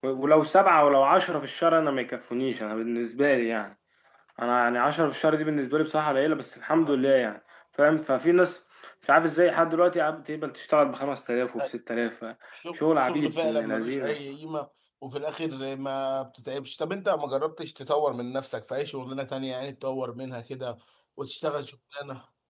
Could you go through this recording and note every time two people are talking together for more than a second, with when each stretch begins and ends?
12.8-14.2

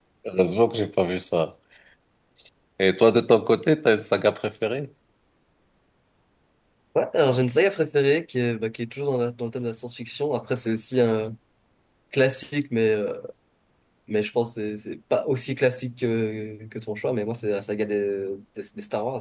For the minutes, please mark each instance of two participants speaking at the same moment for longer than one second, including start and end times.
none

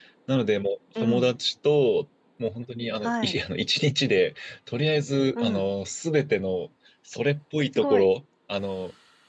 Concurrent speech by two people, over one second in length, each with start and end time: none

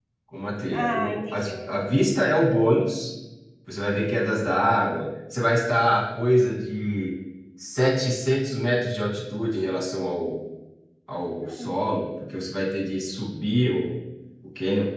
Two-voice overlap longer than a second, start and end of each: 0.7-2.1

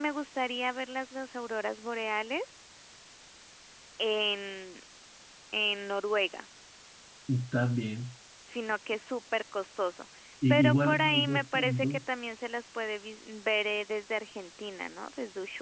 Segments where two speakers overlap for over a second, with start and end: 10.5-12.0

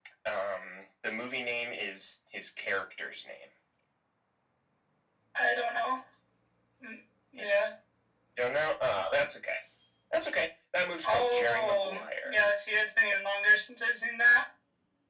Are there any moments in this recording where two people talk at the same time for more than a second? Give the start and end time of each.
11.0-12.4

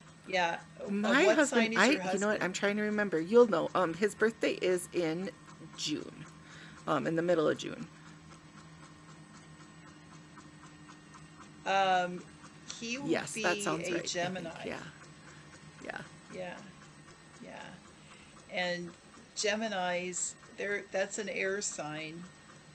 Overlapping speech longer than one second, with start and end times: 0.9-2.6, 13.0-14.7

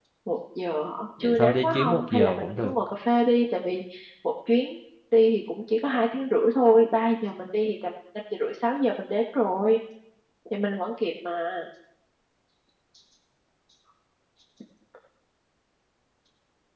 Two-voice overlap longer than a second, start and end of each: 1.2-2.7

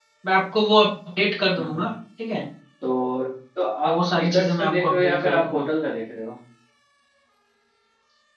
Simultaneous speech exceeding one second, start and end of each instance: 3.9-5.7

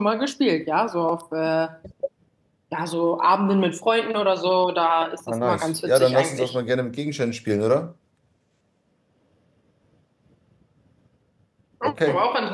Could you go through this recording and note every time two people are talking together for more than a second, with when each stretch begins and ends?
5.3-6.6

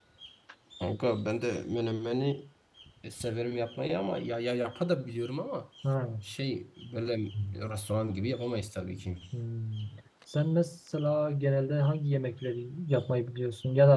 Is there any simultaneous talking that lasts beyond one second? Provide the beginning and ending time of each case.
none

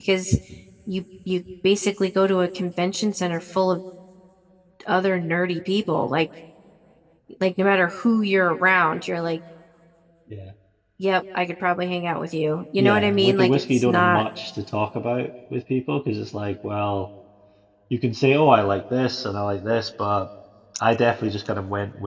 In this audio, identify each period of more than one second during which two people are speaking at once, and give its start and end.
12.8-14.2

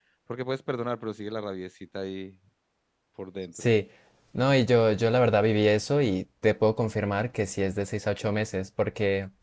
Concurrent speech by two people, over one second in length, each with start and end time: none

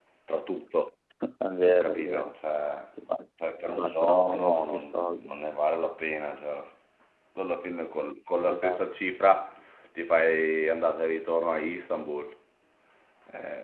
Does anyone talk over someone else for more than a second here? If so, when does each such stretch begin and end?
3.7-5.3

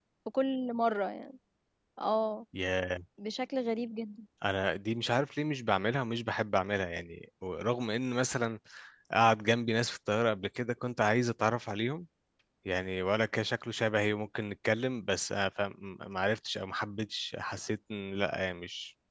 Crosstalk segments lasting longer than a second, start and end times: none

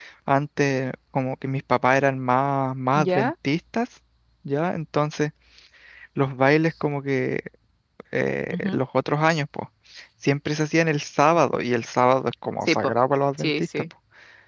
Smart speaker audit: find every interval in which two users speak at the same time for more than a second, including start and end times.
none

